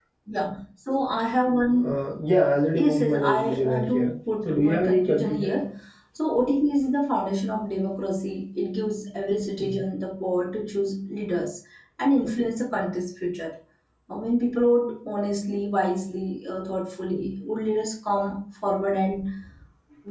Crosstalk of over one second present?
Yes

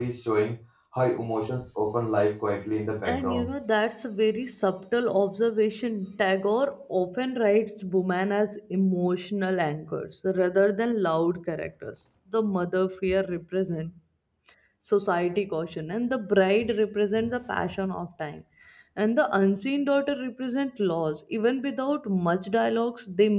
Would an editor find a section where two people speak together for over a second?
No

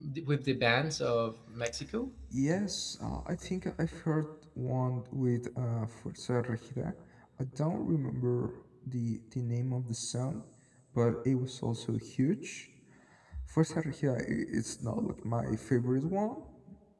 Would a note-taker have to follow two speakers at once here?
No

